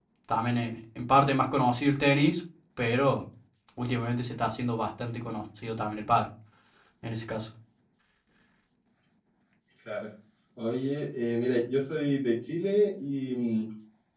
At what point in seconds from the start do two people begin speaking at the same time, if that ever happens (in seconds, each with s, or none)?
none